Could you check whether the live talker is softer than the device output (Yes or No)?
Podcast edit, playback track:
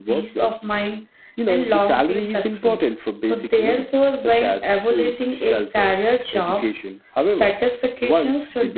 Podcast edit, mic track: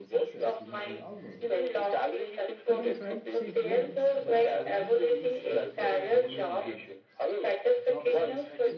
Yes